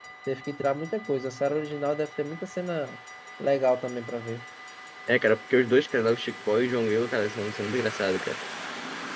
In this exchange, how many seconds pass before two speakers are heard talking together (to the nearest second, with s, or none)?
none